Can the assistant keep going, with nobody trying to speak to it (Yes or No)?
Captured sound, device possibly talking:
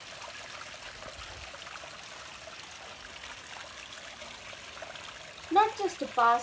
No